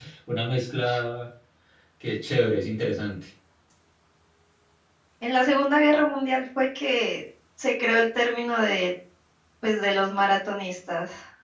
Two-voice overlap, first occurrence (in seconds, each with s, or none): none